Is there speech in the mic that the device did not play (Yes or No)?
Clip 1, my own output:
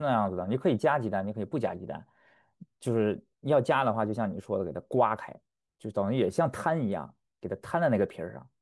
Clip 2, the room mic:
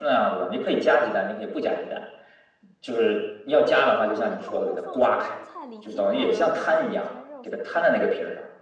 Yes